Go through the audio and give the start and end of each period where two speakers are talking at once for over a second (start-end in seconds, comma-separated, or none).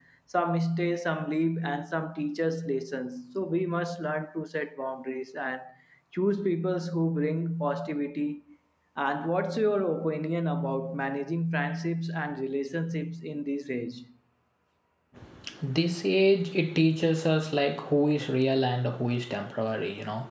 none